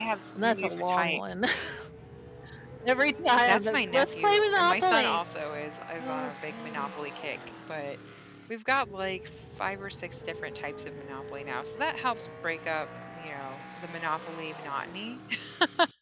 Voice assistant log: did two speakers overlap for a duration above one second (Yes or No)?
Yes